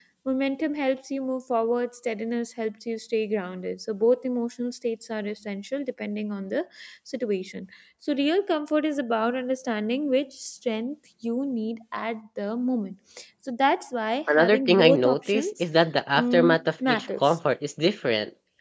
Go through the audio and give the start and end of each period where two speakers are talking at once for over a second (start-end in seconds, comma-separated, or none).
14.3-15.6, 16.1-17.4